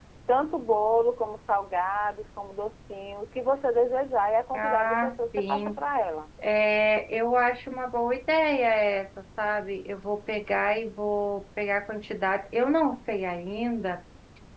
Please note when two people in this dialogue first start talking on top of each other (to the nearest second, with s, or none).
5 s